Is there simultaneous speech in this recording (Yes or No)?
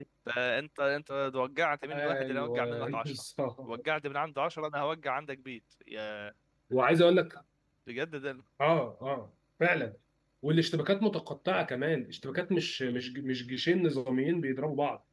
Yes